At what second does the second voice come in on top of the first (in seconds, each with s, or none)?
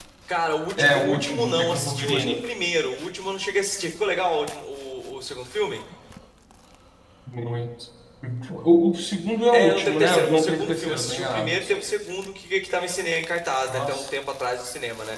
0.8 s